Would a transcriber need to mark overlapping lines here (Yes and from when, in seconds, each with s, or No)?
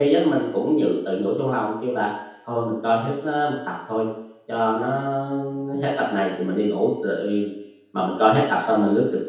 No